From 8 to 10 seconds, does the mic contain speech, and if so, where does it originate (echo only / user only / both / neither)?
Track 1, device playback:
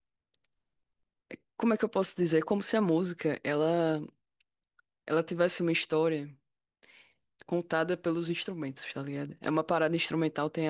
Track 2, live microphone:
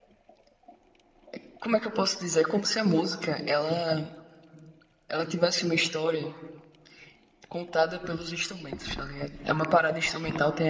echo only